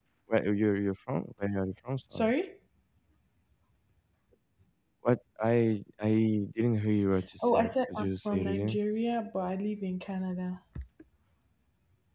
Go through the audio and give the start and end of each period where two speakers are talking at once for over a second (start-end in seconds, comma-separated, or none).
7.4-8.8